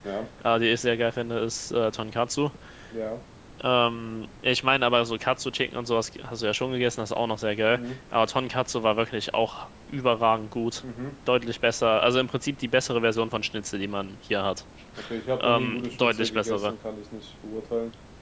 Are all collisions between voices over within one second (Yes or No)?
No